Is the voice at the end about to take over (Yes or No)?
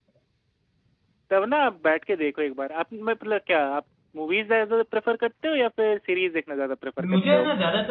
Yes